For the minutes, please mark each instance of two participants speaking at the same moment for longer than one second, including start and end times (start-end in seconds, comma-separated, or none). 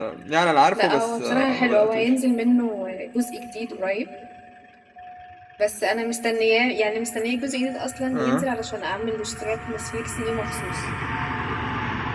0.7-2.1